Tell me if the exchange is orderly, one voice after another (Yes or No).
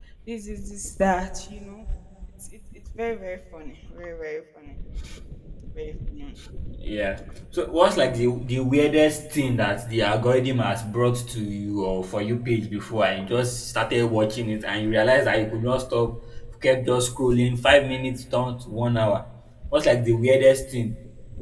Yes